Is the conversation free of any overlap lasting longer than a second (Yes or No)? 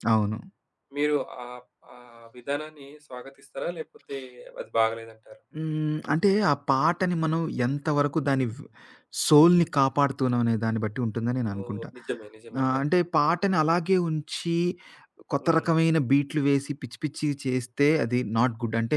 Yes